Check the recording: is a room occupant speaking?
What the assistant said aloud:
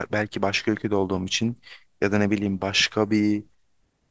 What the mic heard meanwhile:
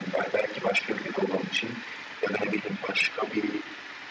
No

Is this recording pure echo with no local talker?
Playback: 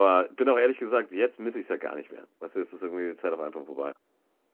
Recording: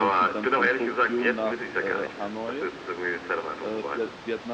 No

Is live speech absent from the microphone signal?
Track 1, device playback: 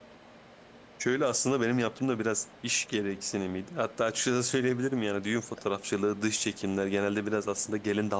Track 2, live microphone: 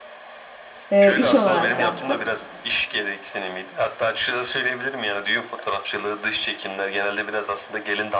No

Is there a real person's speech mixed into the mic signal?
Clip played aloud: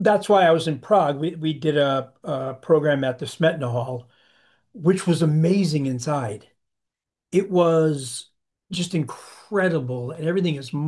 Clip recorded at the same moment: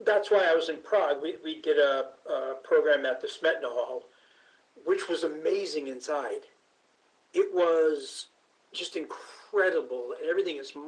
No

